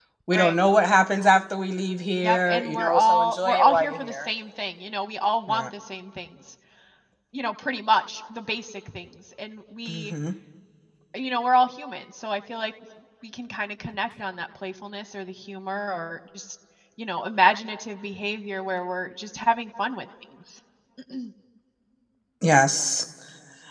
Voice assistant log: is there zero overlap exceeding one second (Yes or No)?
No